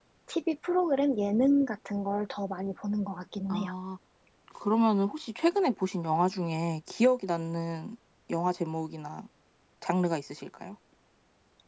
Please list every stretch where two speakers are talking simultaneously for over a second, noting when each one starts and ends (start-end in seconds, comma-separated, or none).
none